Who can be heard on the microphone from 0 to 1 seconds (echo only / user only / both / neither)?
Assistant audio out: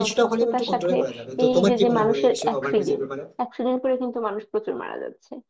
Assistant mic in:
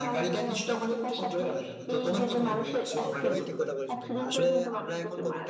echo only